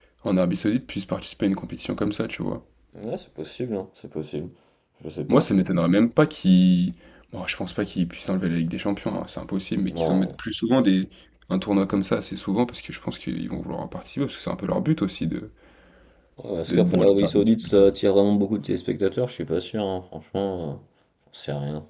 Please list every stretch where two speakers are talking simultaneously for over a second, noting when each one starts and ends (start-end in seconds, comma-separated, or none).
16.7-17.9